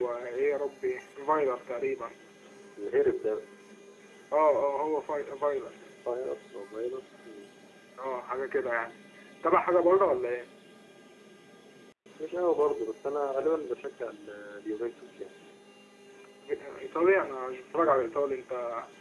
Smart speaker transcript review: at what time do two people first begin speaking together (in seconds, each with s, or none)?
none